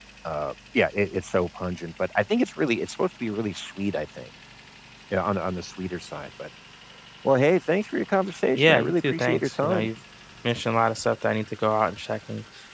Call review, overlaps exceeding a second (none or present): present